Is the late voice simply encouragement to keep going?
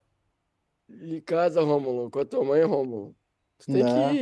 Yes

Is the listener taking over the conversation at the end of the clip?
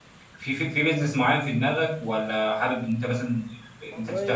Yes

